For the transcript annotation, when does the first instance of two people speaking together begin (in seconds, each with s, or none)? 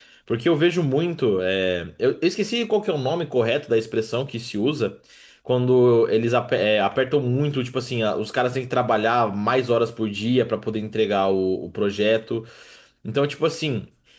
none